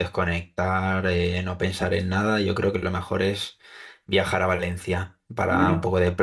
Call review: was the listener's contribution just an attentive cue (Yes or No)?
Yes